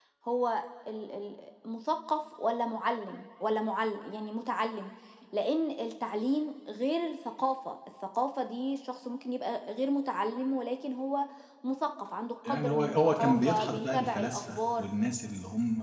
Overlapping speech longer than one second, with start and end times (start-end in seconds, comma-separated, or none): 12.5-14.9